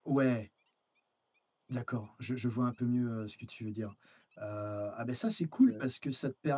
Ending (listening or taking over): listening